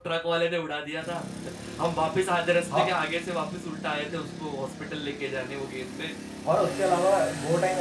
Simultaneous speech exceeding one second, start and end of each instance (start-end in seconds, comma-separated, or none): none